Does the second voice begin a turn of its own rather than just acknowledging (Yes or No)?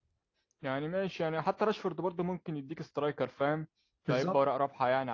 No